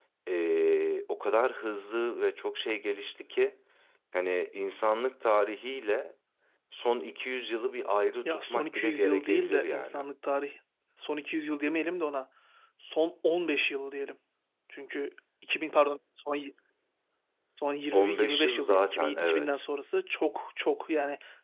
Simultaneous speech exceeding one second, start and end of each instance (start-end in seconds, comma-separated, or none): 8.2-10.0, 17.9-19.5